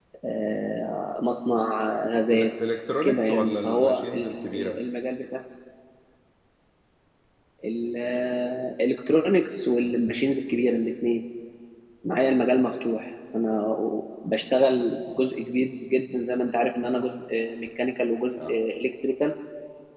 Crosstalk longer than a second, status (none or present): present